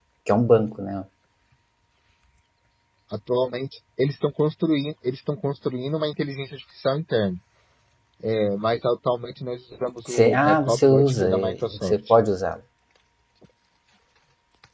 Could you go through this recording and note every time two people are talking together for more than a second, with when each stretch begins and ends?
10.1-12.1

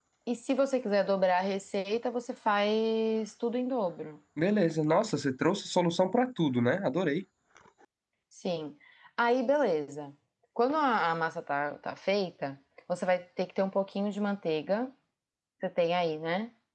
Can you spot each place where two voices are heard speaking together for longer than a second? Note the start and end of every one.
none

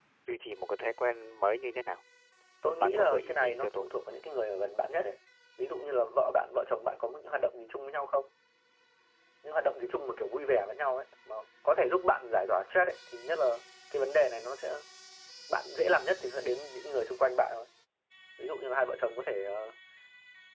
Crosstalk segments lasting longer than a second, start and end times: 2.6-3.9

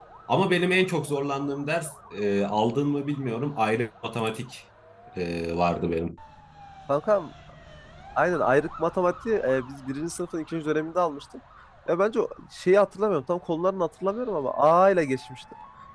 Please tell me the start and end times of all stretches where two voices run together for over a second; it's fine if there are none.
none

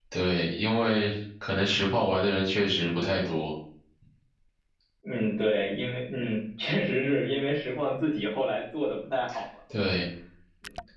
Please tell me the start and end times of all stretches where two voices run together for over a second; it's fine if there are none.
none

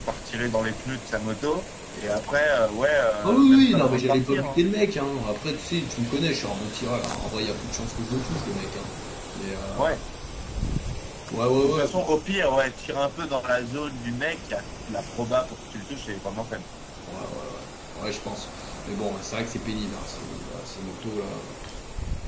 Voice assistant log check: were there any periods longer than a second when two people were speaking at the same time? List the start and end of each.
3.2-4.6

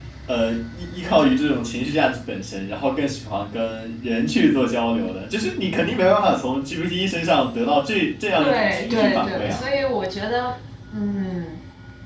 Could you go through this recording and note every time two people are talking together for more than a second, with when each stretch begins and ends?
8.4-9.6

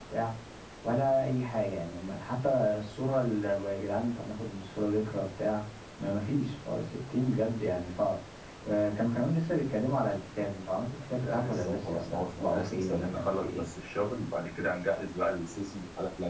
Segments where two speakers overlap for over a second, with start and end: 11.2-13.7

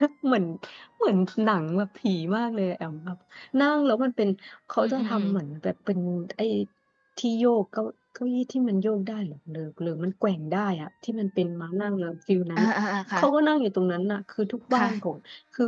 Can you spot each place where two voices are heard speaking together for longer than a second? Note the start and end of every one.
none

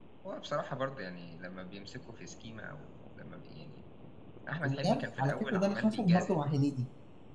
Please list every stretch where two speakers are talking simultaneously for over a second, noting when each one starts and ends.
4.6-6.3

